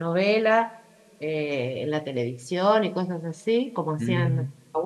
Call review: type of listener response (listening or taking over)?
taking over